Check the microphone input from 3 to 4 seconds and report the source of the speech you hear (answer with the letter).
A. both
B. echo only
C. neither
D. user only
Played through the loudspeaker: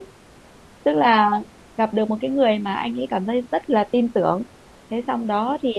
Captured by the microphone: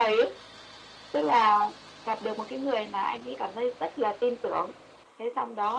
B